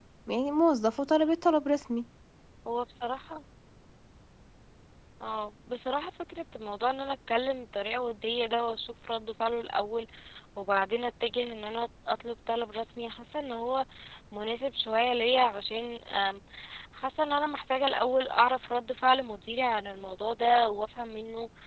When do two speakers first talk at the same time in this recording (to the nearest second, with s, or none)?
none